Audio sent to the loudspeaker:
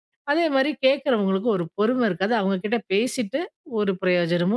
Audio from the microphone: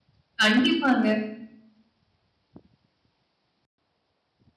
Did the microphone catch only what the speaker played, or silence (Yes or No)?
No